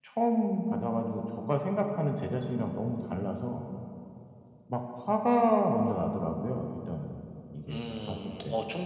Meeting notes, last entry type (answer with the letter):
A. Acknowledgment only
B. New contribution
B